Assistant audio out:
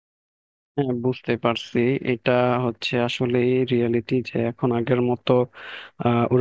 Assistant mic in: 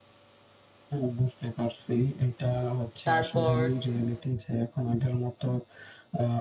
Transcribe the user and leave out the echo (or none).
তারপর